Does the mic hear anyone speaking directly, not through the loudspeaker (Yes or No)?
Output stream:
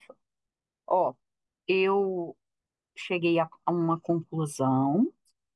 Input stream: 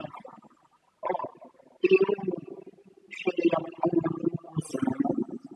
No